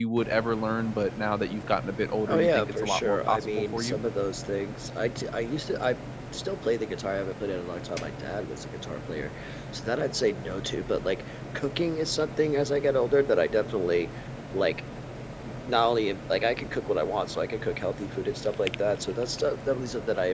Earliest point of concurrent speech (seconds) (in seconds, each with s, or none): 2.3 s